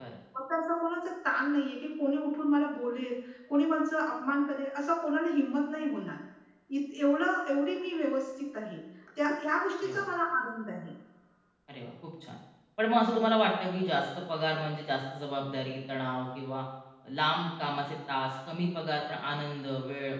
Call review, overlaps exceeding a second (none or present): none